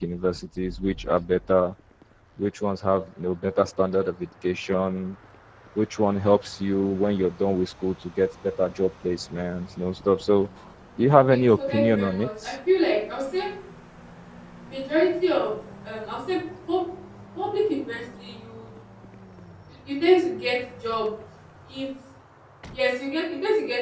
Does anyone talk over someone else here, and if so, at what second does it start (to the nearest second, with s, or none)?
11 s